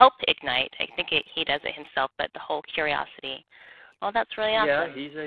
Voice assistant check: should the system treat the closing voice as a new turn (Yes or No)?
Yes